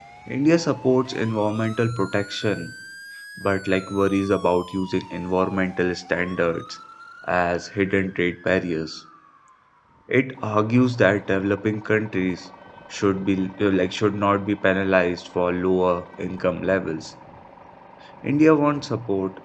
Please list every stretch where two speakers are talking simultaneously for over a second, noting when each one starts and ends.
none

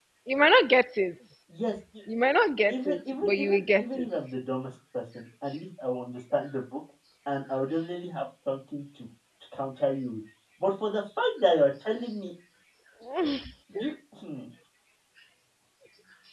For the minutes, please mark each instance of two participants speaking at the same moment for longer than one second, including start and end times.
2.7-4.1

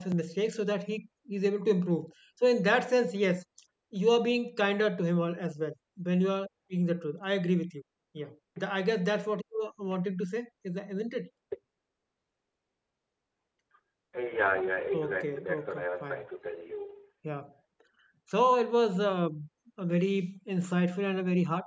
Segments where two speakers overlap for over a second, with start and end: 14.9-16.2

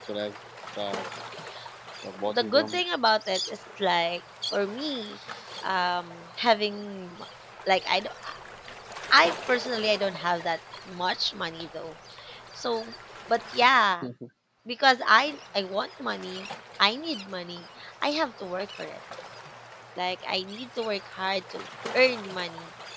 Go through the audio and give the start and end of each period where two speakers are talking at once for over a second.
none

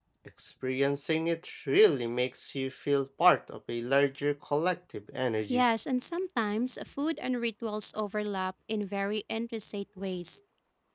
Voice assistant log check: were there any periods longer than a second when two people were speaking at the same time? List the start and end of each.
none

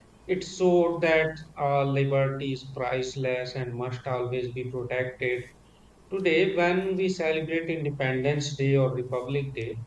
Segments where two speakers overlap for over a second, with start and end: none

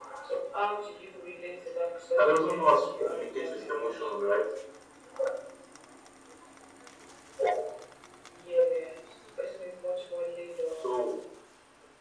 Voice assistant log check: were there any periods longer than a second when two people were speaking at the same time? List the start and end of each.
2.2-4.1

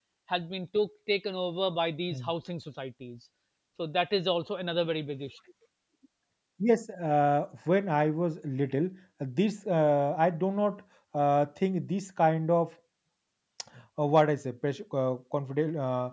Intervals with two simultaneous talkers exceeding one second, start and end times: none

